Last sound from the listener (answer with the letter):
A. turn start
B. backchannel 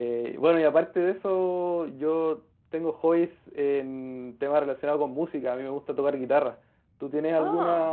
B